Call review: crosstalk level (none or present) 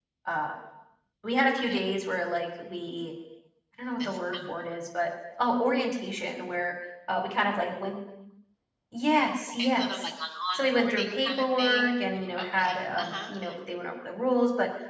present